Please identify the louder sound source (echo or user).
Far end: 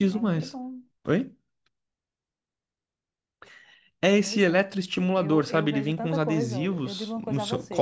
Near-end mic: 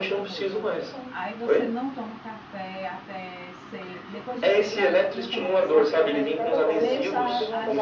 echo